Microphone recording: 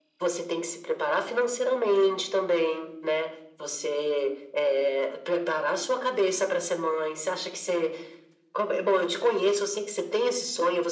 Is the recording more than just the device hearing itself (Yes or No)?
No